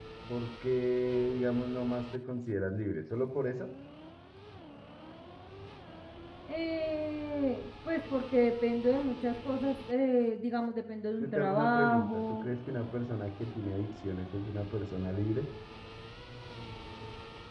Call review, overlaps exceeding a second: present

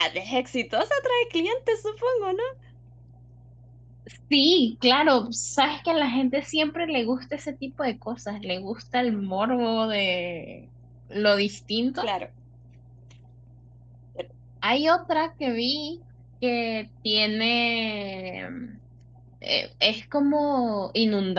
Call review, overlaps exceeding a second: none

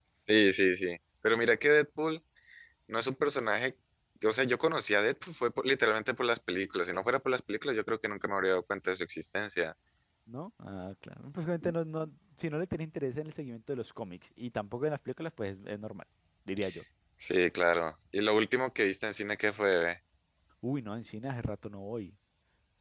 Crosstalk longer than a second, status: none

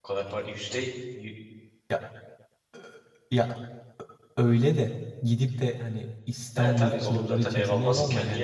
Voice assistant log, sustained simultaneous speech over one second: present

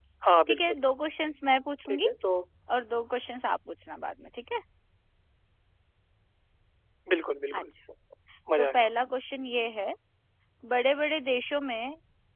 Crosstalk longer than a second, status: none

